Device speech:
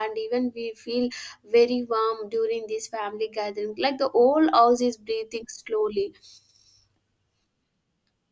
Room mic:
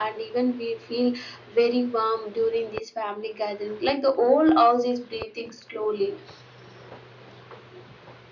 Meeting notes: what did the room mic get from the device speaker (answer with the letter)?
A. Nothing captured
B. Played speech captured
B